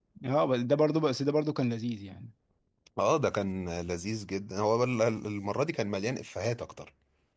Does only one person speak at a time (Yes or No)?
Yes